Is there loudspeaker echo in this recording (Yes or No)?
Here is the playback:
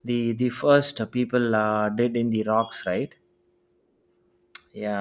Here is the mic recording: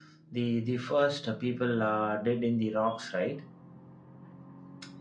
Yes